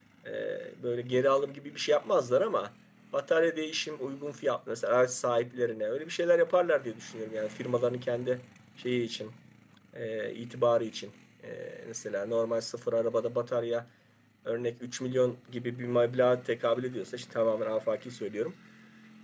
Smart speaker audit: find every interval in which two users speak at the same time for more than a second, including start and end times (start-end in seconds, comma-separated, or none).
none